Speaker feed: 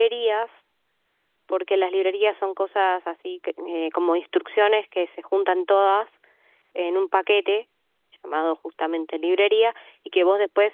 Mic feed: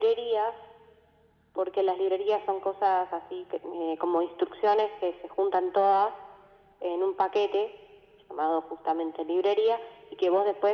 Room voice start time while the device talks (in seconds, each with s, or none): none